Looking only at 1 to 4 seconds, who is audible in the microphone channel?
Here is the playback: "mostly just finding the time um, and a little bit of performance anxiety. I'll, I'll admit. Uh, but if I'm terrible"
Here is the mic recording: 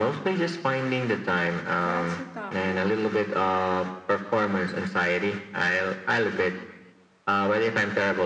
both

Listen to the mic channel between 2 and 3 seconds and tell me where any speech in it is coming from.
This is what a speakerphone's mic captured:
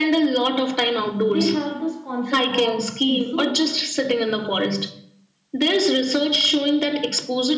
both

